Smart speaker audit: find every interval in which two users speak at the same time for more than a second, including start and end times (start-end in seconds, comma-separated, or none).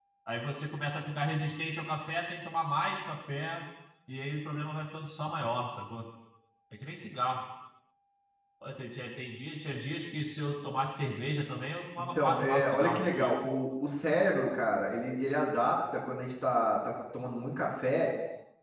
12.1-13.5